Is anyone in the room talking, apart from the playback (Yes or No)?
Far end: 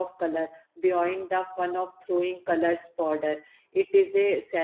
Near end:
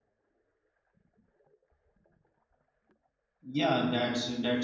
Yes